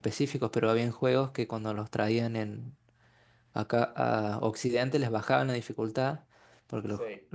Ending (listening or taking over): listening